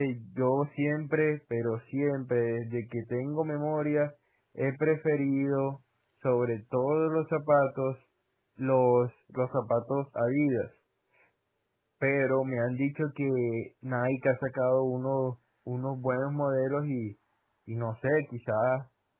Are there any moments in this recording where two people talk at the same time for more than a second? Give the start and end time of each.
none

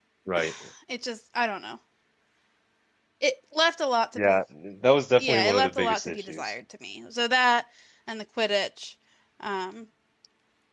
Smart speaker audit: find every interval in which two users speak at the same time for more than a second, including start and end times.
5.2-6.5

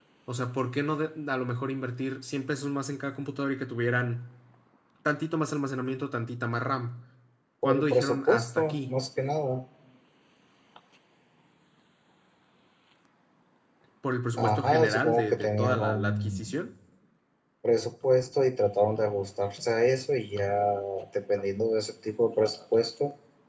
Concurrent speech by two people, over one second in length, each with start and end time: 7.6-8.9, 14.4-16.5

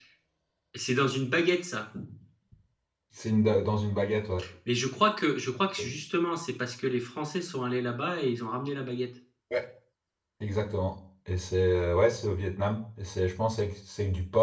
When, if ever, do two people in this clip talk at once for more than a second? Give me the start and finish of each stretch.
none

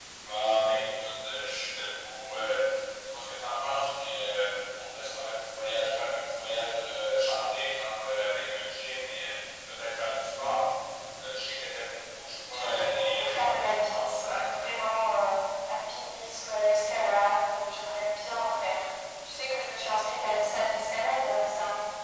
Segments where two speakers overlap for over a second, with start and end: 12.5-14.5

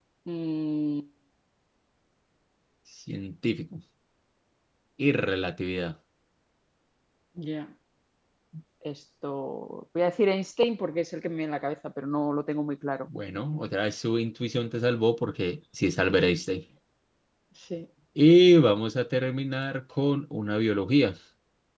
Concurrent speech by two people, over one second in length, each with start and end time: none

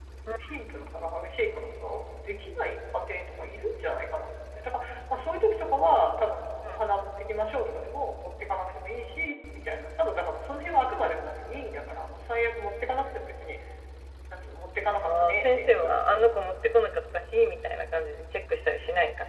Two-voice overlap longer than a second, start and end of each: 15.0-16.4

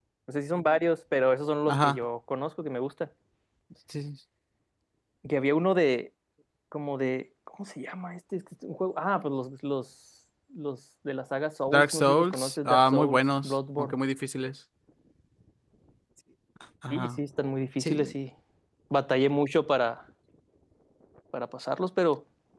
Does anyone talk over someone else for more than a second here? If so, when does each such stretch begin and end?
11.7-14.0

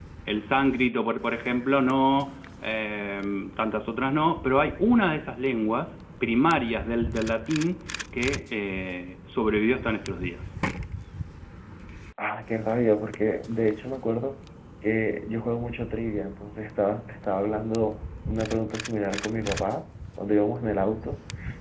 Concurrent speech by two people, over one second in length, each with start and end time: none

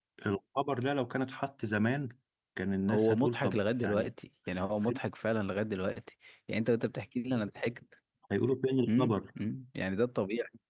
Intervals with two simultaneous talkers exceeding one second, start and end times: 2.9-4.1

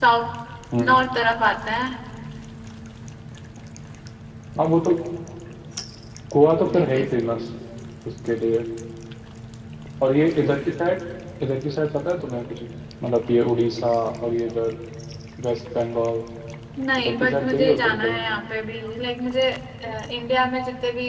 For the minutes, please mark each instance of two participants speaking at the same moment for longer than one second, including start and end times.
17.0-18.3

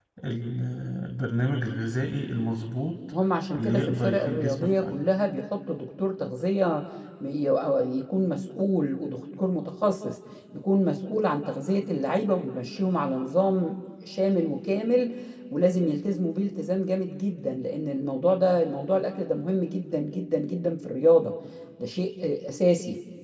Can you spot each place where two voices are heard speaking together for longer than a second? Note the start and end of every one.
3.6-5.0

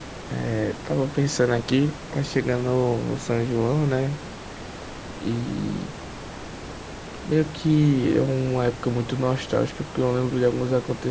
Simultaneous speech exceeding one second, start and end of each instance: none

